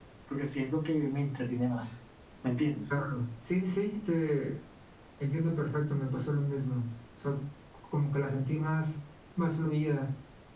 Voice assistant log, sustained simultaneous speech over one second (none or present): none